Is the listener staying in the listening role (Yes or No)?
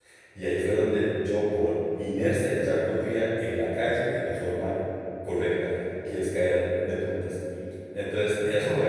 Yes